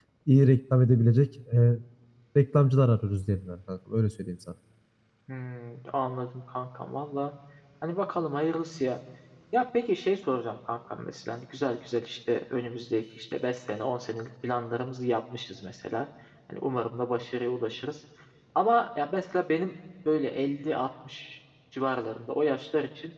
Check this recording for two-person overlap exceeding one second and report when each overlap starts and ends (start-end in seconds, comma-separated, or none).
none